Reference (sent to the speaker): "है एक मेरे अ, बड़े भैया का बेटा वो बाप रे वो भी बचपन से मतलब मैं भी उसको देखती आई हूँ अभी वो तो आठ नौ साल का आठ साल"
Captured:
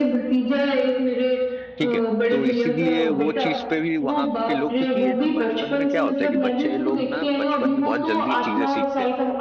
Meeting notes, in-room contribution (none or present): present